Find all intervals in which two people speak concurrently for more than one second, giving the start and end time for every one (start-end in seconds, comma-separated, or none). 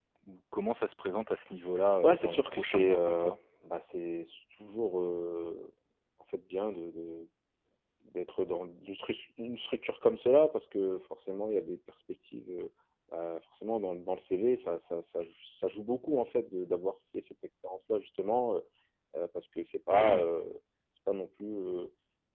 2.0-3.4